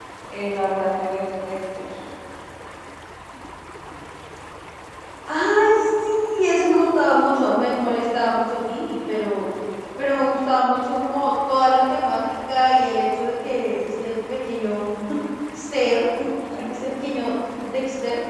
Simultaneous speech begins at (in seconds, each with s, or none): none